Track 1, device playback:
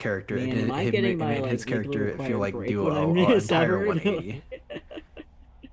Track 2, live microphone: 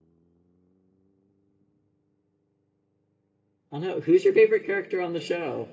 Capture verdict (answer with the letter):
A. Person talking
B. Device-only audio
A